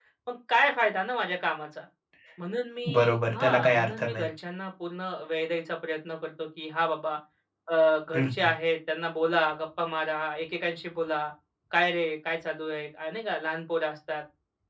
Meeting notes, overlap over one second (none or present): present